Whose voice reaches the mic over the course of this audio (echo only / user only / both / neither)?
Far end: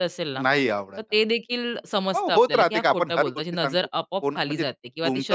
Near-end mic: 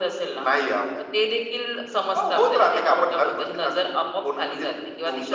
echo only